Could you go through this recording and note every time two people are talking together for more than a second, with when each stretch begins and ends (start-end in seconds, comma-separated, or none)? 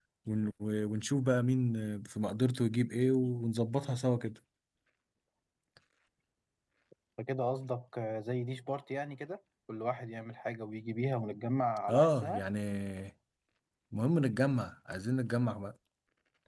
none